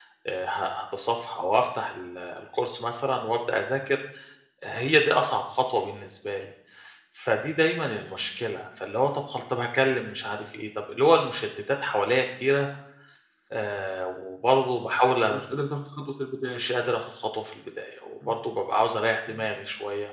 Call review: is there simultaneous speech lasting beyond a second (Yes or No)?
No